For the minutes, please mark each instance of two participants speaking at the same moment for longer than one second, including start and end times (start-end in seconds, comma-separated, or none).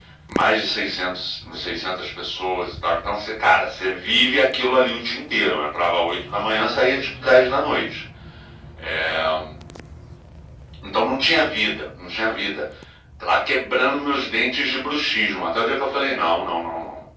none